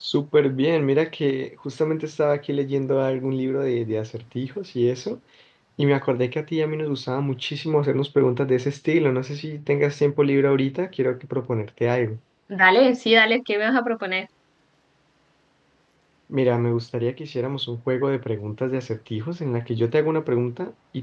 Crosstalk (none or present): none